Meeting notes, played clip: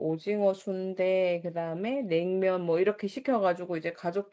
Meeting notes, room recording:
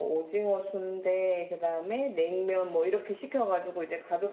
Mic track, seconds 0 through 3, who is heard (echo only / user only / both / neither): echo only